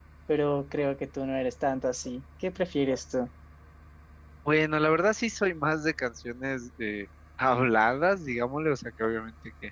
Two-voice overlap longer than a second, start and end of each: none

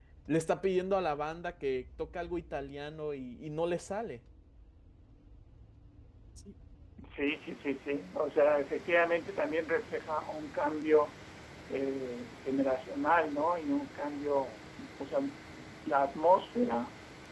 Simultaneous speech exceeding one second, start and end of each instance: none

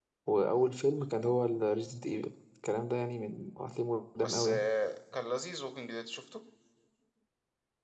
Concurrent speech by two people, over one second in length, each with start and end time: none

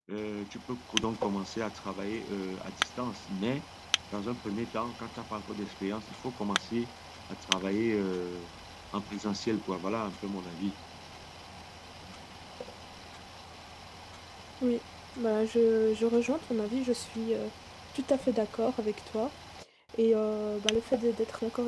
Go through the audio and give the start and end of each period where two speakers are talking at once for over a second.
none

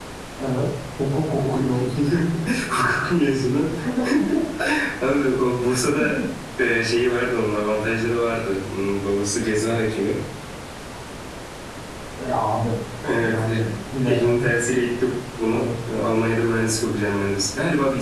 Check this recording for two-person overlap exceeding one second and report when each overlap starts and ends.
none

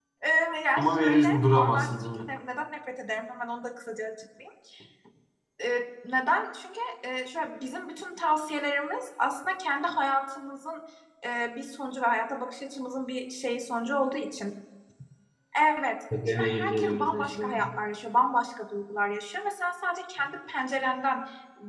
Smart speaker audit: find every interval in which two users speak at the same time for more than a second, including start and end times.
0.8-2.3, 16.3-17.6

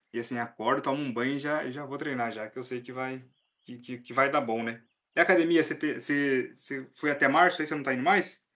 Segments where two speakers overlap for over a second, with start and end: none

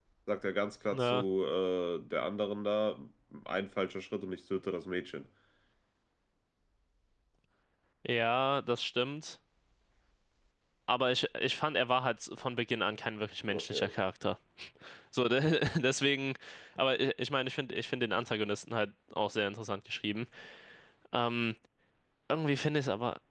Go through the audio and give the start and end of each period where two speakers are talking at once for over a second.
none

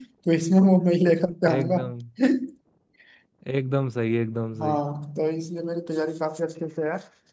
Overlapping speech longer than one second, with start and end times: none

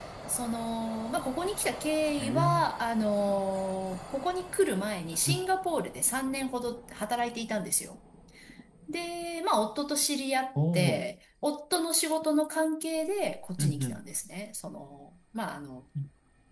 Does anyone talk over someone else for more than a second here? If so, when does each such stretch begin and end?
none

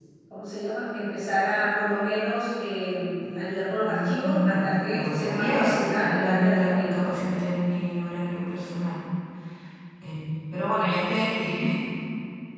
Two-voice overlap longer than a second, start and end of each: 3.8-7.1

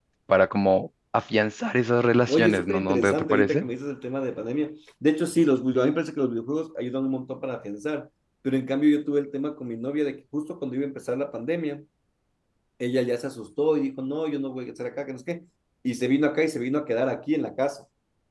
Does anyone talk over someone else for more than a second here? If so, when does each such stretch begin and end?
2.3-3.6

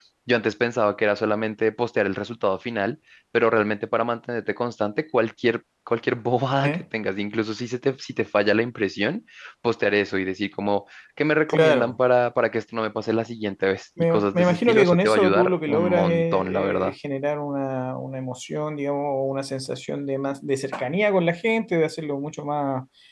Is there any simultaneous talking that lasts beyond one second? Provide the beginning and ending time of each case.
14.0-16.9

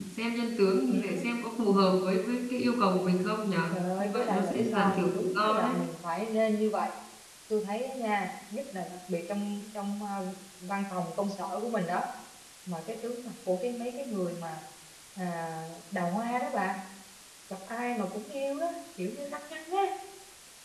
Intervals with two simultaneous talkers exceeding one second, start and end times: 3.7-5.8

